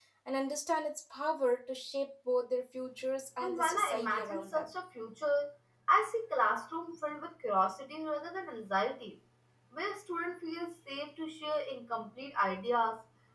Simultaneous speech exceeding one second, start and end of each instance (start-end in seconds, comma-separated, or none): 3.4-4.7